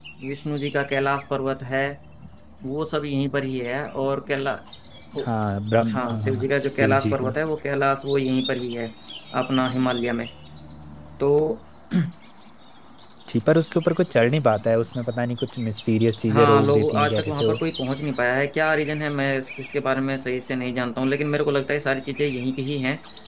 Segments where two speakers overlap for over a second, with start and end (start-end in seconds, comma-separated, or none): 5.9-7.3, 16.3-17.6